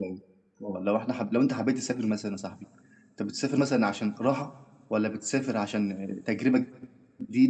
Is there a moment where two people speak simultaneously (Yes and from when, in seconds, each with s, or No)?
No